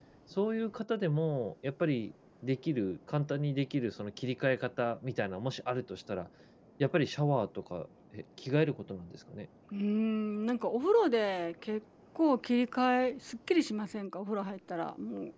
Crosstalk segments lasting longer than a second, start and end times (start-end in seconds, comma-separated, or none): none